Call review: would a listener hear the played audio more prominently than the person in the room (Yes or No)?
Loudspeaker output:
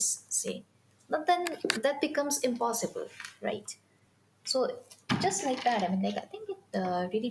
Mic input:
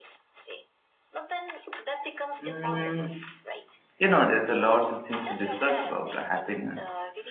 No